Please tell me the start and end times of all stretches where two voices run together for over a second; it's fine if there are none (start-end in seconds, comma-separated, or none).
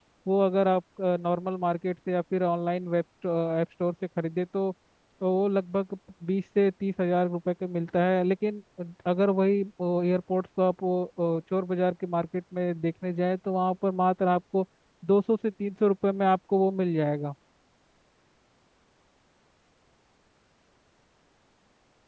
none